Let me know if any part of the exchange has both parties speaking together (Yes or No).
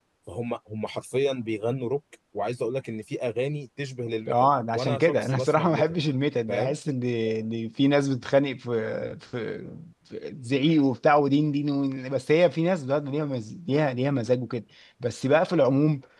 Yes